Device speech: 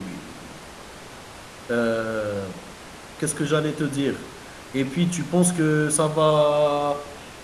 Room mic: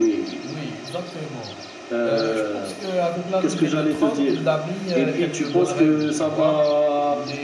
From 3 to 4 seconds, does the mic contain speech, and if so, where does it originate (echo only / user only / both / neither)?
both